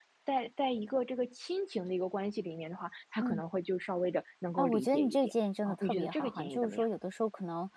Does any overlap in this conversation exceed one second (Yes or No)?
Yes